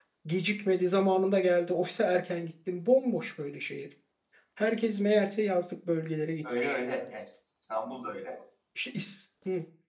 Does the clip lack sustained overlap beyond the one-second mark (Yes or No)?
Yes